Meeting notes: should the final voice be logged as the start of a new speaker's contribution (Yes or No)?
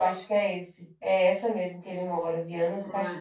Yes